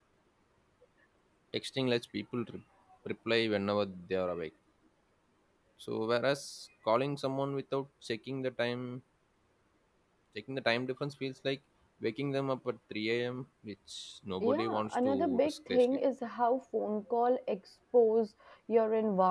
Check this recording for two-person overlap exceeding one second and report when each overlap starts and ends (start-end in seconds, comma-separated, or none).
14.4-16.0